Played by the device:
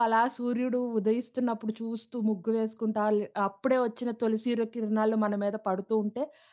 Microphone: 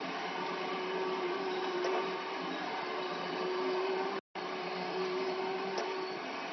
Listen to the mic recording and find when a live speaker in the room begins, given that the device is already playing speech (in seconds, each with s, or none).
none